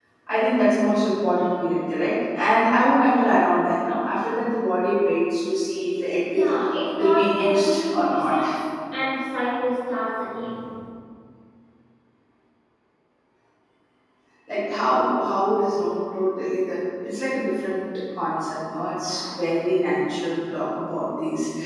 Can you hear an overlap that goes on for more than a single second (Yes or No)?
Yes